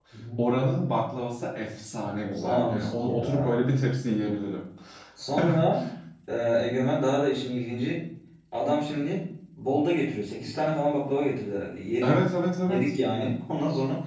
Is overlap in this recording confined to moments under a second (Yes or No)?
No